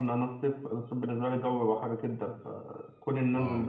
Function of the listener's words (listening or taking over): listening